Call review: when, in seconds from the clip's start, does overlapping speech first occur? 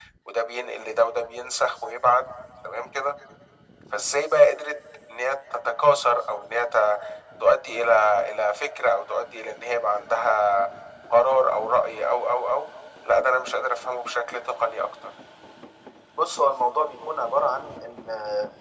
none

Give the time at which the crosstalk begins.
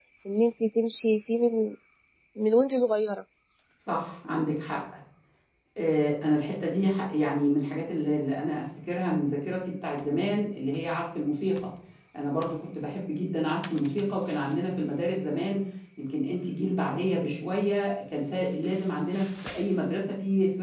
none

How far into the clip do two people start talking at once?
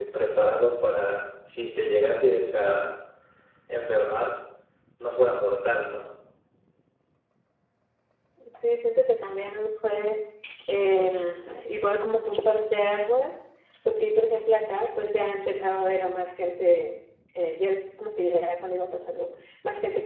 none

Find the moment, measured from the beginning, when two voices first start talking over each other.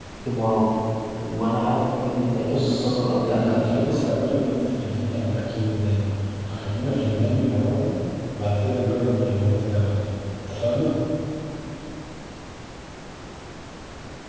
2 s

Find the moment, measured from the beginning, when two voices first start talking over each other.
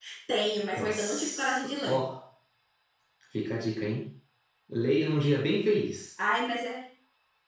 1 s

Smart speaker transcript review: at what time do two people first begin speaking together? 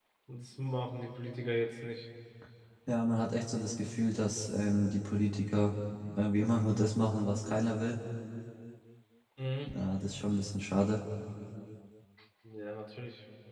none

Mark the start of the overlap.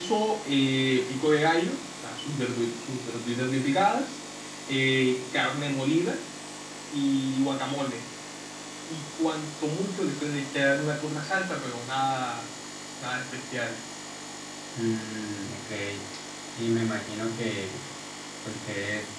none

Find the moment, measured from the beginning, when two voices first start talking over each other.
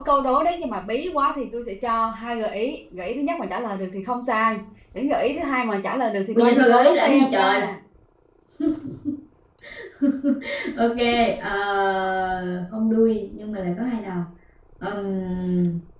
6 s

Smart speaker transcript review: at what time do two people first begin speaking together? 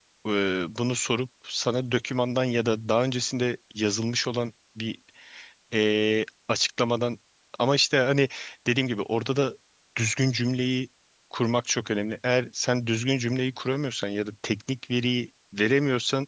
none

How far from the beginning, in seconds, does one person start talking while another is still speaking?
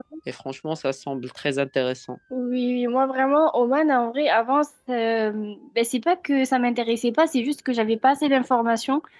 none

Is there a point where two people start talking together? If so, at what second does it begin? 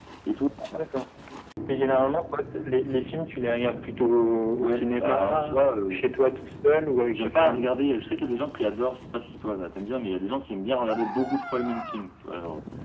5 s

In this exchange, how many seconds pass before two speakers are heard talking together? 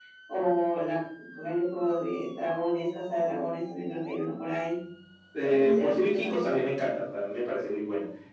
5 s

